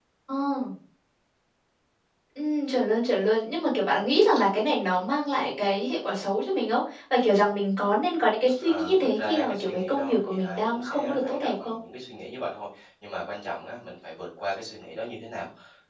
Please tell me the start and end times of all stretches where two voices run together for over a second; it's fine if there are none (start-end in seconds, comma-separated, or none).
8.6-11.7